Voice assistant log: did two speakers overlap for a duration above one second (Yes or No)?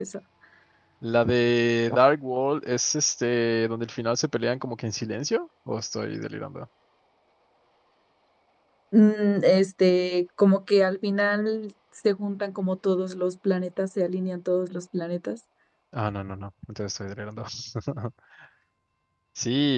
No